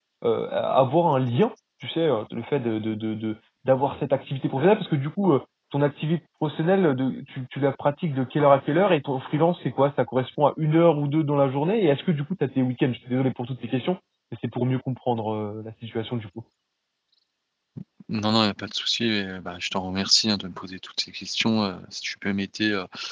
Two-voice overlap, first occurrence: none

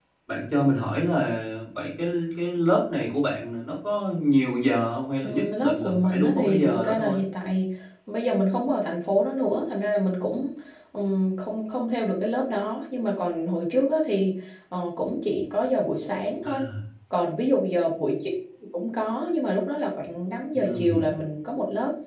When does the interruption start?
5.2 s

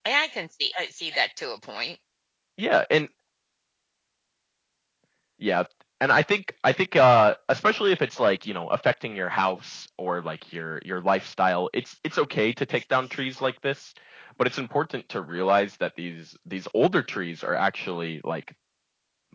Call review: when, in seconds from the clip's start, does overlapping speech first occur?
none

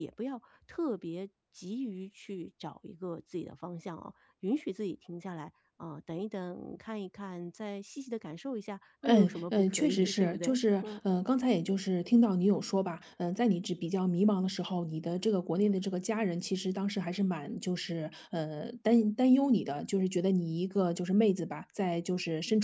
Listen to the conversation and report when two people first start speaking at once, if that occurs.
9.1 s

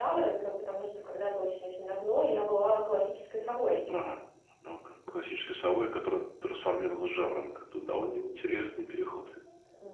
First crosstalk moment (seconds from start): none

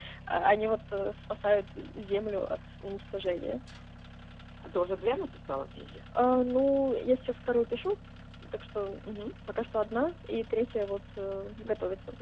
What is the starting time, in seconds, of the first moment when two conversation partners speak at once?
none

